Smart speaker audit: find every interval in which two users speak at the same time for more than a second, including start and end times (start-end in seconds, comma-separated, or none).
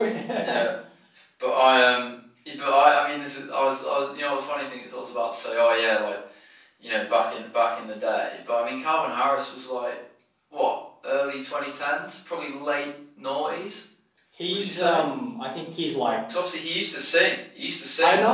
none